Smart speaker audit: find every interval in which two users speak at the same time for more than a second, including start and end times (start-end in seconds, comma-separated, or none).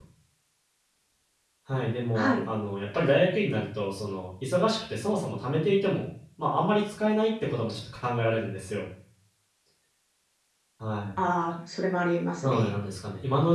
none